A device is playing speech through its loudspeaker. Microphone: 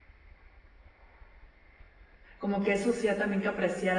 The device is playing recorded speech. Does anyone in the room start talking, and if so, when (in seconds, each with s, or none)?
2.4 s